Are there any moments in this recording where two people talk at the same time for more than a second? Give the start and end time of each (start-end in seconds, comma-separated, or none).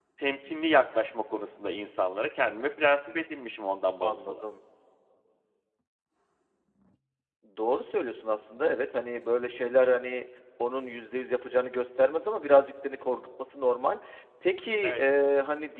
none